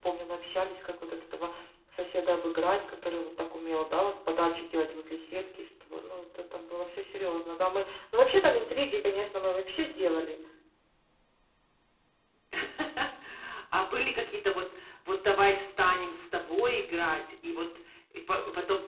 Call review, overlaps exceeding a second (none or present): none